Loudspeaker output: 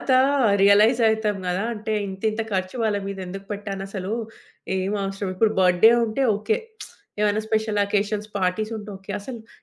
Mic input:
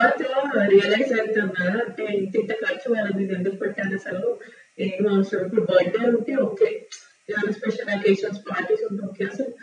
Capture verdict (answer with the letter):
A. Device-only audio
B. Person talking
A